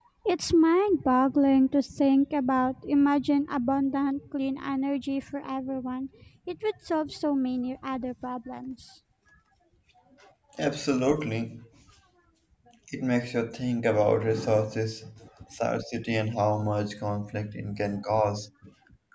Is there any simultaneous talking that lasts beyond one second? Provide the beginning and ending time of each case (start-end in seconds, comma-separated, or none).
none